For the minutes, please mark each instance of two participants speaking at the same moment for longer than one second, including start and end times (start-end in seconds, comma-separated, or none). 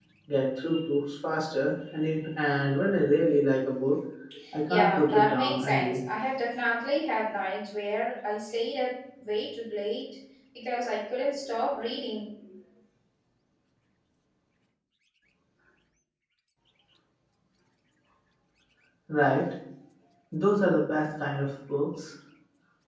4.7-6.0